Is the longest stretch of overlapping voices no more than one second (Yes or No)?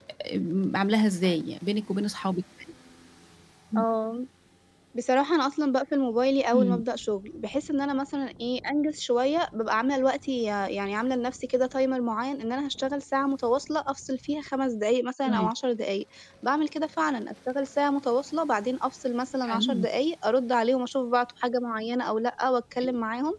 Yes